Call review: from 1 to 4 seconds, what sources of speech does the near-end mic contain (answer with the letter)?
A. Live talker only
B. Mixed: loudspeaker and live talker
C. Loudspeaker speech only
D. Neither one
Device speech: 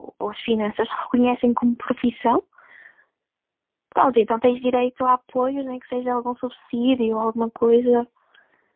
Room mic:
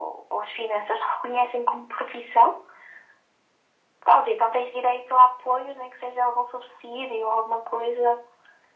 C